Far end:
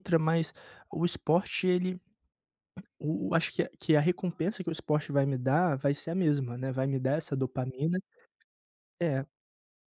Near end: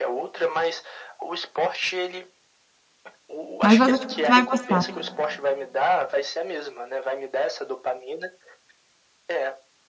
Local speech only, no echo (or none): Mas va acho que você vai gostar.